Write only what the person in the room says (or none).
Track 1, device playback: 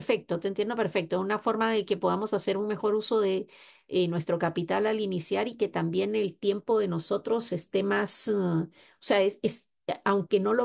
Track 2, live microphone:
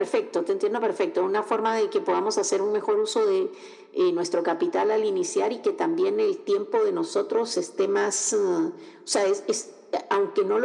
none